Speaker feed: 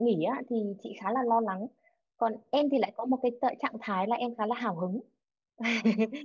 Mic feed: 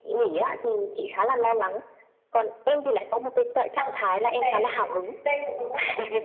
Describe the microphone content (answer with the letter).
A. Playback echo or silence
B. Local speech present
B